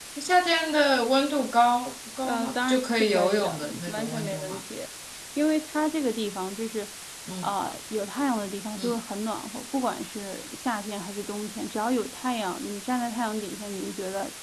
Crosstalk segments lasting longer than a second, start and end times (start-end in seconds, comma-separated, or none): 2.2-4.6